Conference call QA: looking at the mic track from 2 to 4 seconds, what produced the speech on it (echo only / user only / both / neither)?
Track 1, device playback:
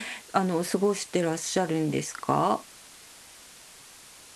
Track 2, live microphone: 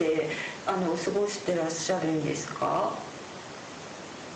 echo only